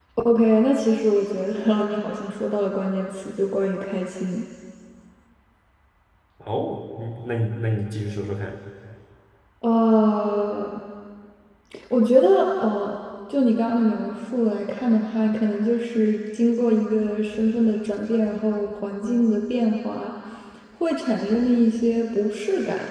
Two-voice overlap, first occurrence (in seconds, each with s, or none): none